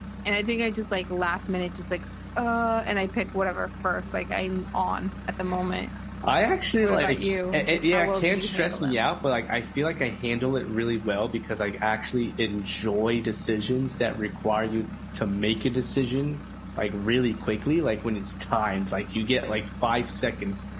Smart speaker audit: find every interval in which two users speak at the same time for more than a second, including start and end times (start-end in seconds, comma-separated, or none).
6.8-9.0